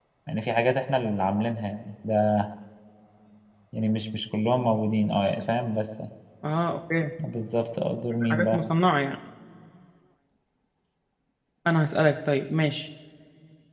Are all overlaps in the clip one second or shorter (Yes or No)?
Yes